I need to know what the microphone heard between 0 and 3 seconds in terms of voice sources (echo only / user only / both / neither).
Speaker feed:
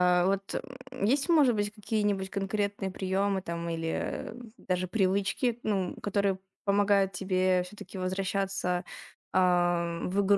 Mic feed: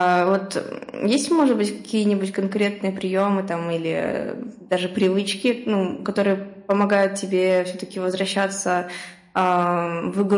echo only